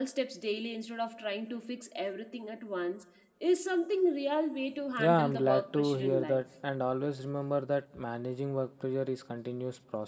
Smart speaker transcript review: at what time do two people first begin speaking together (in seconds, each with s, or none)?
5.0 s